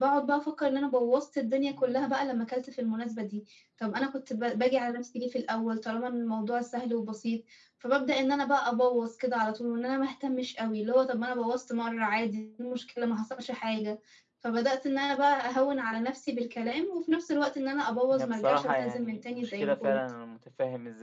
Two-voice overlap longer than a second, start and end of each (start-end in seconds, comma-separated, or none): 18.1-20.0